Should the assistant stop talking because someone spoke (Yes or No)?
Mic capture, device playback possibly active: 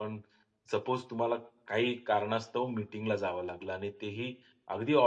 Yes